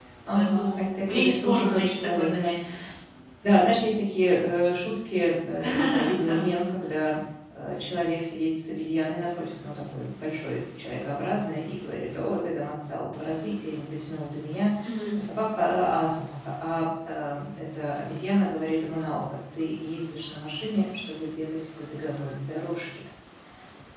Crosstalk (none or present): present